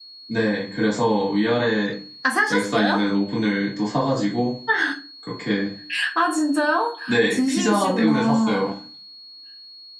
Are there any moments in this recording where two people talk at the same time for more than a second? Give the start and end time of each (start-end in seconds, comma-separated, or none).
7.1-8.7